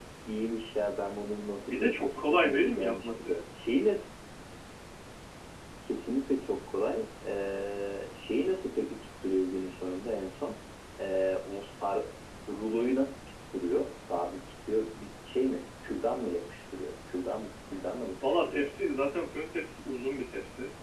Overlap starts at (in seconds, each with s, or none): 1.6 s